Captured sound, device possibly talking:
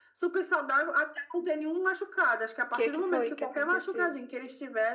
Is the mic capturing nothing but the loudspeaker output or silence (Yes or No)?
No